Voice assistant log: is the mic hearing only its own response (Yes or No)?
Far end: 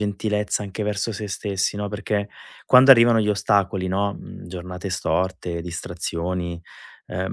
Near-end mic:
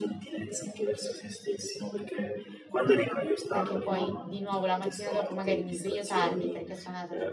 No